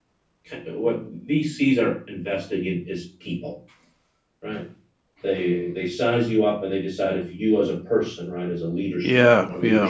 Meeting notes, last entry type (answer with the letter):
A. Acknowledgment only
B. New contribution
A